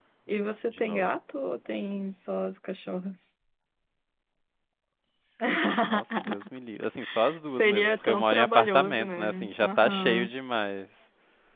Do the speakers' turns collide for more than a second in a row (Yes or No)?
Yes